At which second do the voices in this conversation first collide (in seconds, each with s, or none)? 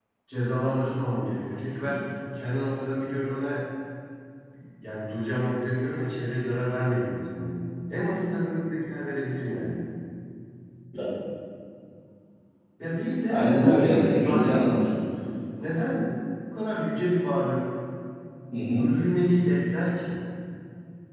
13.3 s